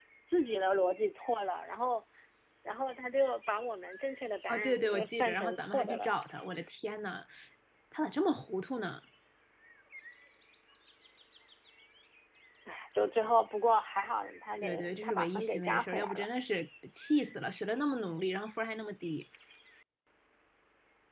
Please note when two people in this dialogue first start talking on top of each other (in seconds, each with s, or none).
4.5 s